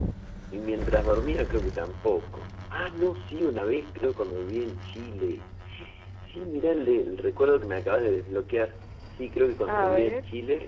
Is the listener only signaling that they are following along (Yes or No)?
Yes